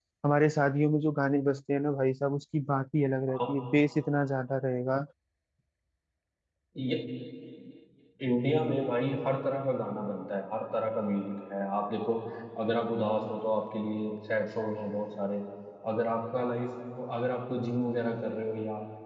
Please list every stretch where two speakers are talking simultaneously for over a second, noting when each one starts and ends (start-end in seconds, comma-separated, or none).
none